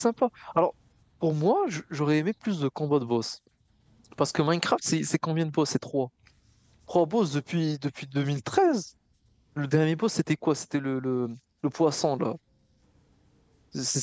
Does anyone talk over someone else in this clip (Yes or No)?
No